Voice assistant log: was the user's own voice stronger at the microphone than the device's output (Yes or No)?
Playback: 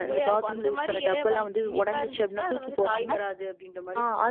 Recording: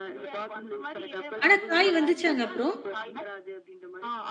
Yes